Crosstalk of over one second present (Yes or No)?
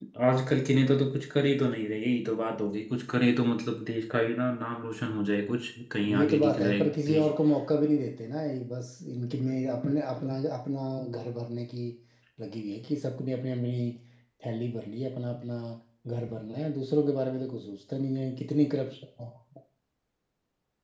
Yes